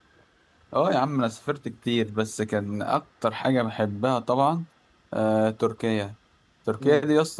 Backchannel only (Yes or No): Yes